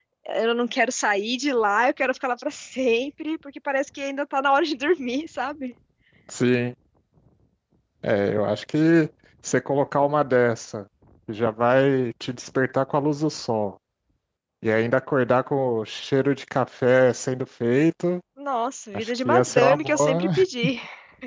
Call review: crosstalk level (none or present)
present